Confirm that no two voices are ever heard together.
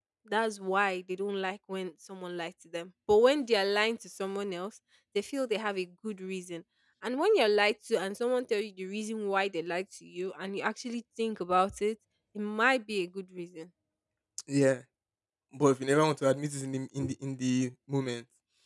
Yes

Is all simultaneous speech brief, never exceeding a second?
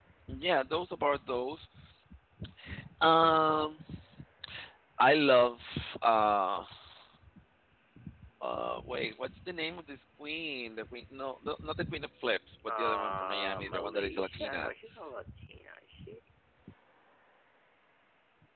No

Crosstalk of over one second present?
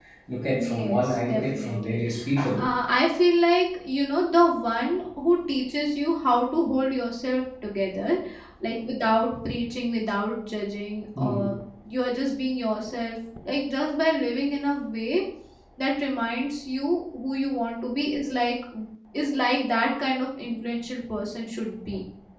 Yes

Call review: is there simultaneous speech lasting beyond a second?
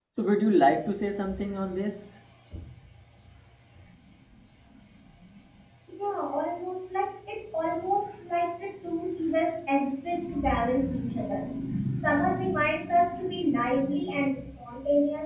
No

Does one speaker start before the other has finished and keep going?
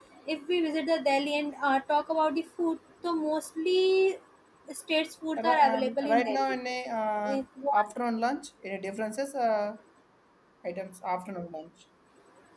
Yes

